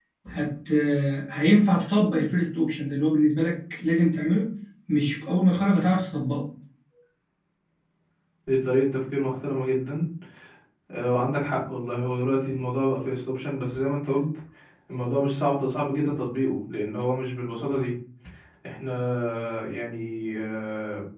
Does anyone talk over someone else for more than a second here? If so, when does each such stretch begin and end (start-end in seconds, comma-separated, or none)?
none